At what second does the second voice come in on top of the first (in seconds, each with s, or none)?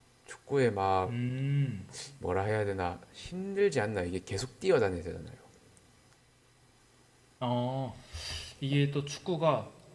none